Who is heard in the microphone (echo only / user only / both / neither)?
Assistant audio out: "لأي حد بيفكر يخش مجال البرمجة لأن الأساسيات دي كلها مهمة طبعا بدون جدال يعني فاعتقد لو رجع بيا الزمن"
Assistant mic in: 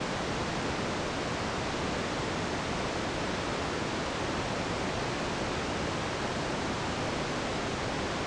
neither